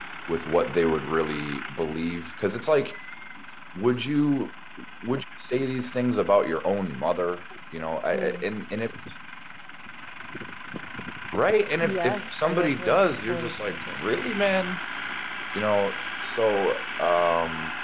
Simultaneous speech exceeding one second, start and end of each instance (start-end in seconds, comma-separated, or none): 11.8-14.0